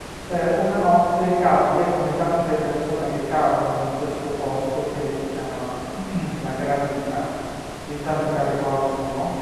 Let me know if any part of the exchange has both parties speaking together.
No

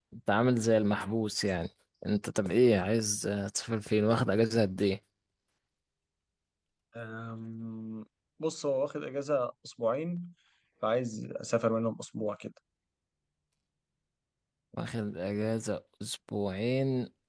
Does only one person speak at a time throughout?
Yes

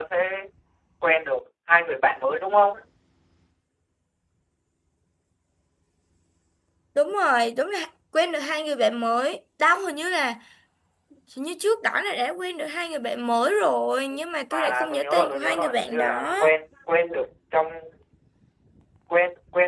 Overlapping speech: Yes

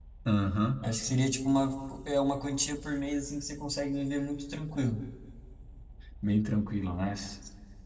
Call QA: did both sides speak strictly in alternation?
Yes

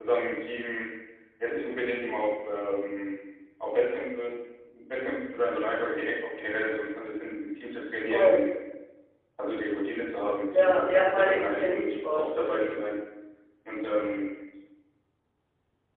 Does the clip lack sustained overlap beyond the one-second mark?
No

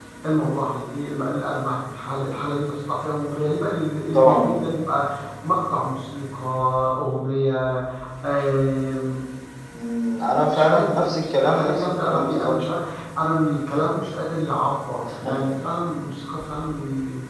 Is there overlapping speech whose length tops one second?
Yes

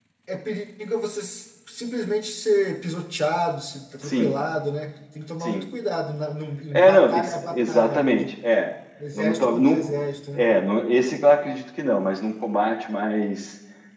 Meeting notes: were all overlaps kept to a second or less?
No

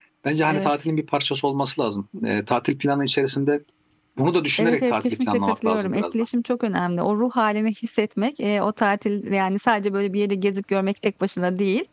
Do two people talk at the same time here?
Yes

